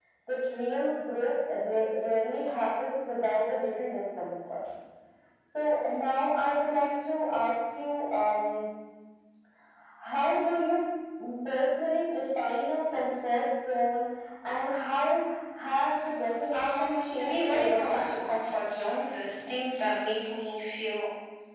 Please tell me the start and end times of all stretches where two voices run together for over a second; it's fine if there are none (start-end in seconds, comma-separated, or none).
16.5-18.3